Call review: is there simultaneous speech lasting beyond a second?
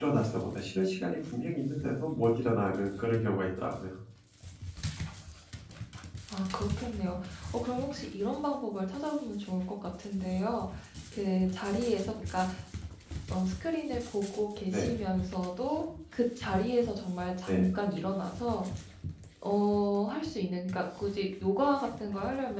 No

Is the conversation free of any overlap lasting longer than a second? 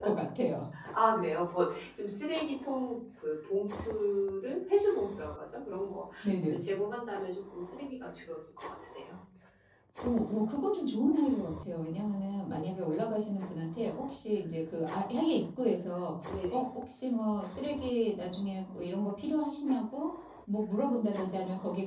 Yes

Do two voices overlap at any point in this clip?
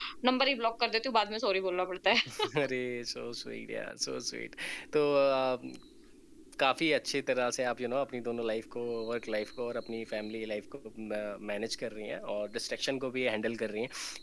No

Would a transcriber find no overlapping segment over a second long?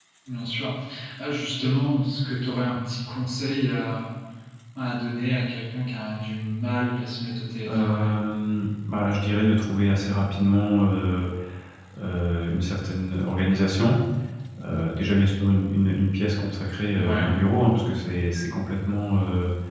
Yes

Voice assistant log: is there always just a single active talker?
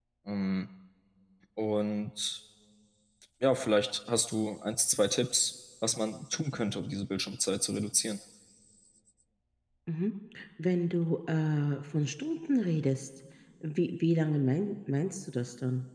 Yes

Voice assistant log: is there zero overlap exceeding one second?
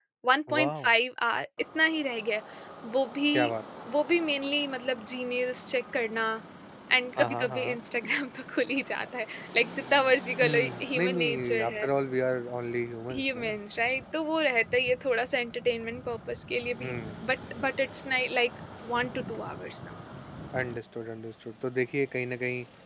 No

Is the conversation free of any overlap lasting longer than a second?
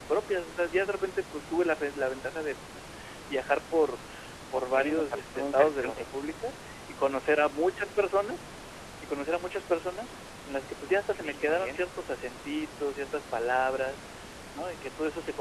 No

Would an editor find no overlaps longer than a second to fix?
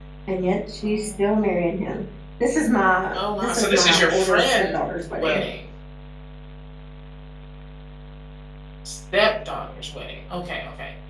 No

